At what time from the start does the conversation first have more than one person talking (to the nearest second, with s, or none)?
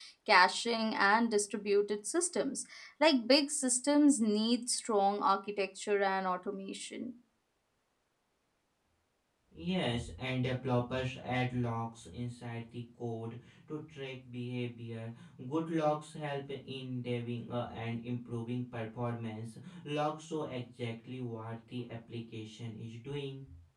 none